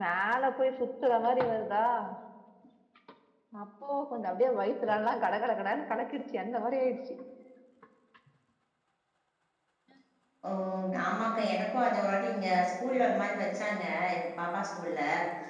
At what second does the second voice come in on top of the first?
none

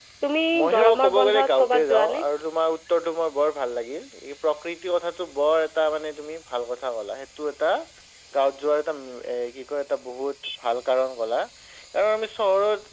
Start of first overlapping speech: 0.6 s

